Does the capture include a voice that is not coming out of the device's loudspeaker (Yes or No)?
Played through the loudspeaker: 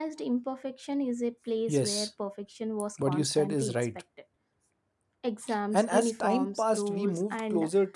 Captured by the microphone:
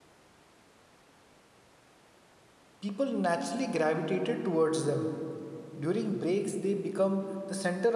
Yes